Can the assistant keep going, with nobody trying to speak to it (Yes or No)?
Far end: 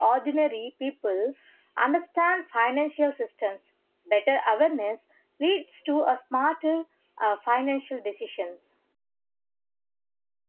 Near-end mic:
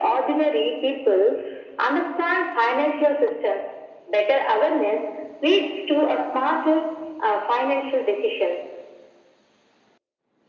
Yes